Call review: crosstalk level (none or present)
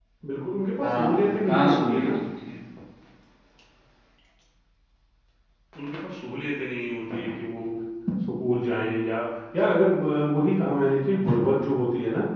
present